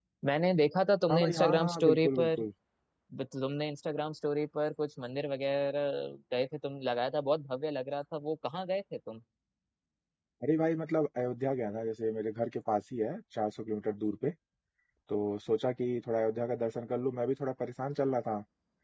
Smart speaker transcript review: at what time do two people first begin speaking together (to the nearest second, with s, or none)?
1 s